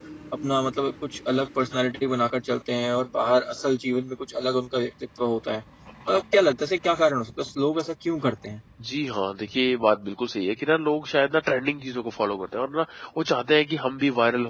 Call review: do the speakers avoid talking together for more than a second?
Yes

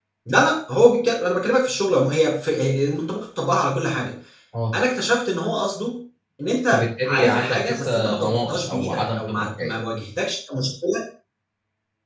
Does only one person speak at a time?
No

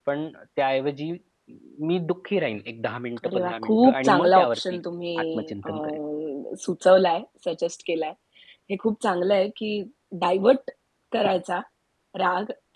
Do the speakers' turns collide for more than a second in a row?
Yes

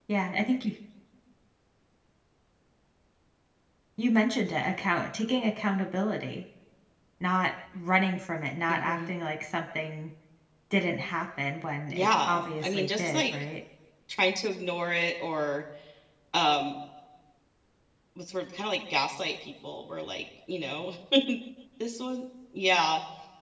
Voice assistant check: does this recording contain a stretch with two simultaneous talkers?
Yes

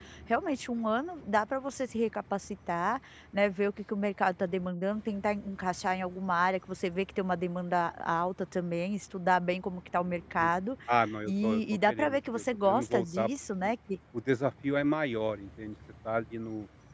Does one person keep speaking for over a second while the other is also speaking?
Yes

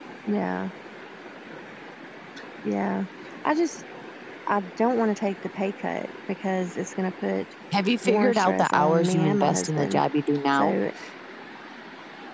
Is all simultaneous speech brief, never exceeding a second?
No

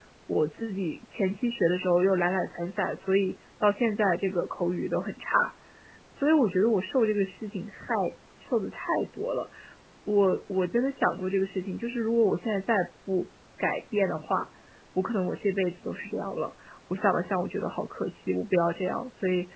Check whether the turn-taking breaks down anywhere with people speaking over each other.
No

